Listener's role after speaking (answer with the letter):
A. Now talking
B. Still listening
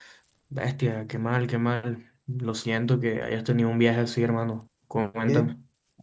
A